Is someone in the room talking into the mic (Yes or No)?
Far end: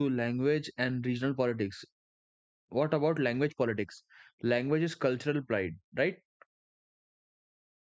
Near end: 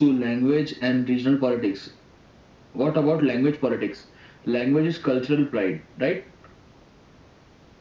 No